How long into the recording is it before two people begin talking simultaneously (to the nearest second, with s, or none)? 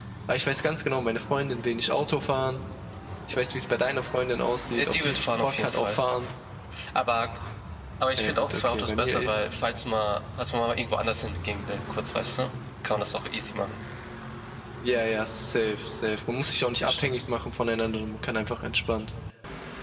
5 s